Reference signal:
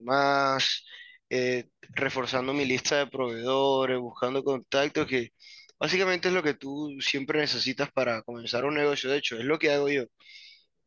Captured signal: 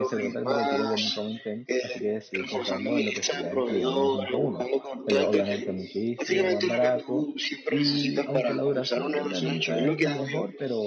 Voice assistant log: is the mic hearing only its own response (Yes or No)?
No